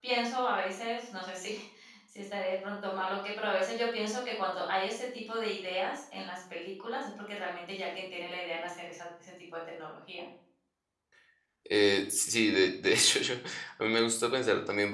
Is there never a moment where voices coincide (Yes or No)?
Yes